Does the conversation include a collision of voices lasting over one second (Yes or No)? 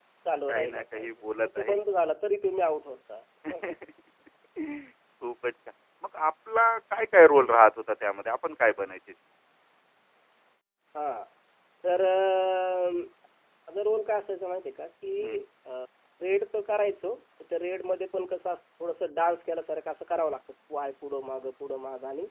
Yes